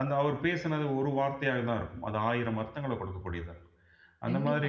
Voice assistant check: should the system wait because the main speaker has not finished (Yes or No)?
No